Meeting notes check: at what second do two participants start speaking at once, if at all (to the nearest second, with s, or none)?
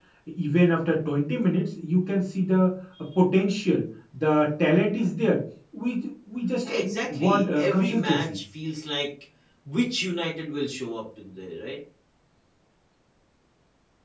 7 s